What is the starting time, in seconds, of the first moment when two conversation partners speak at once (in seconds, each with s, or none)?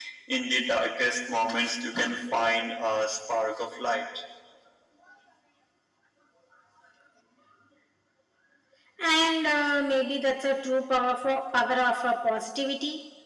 none